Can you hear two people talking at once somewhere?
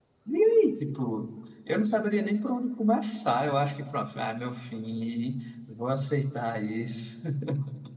No

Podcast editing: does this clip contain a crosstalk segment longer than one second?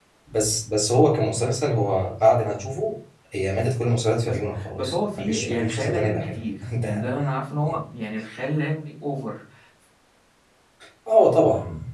Yes, from 4.3 s

